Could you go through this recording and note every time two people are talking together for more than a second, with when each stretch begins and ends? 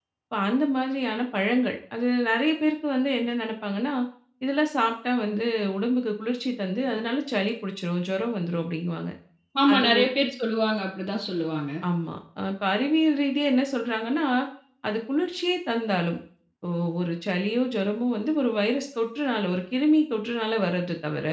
none

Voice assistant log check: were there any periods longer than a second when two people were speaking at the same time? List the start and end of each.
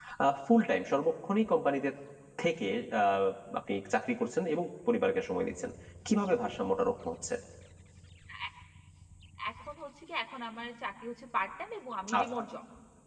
none

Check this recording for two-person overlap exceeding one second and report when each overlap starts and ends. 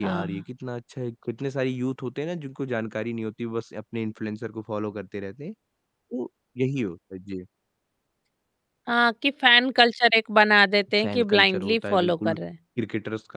11.0-12.3

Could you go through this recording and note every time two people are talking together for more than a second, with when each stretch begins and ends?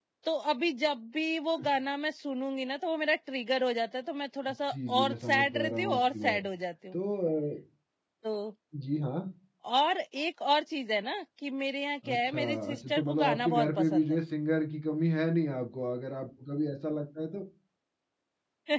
4.5-6.4, 12.1-14.2

